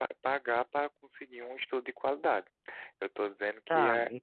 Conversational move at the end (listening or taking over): taking over